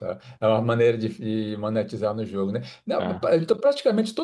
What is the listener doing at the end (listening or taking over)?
listening